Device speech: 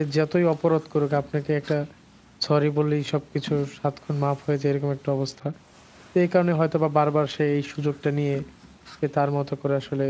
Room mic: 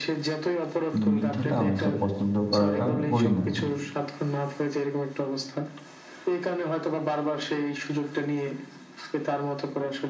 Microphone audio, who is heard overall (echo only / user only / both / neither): both